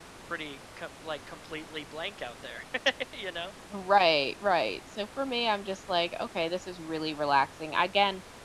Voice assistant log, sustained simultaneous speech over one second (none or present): none